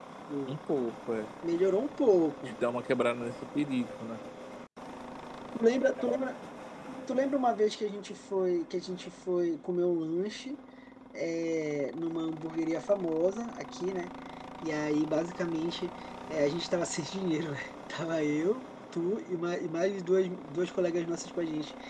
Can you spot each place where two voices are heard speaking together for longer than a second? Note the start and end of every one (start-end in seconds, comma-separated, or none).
none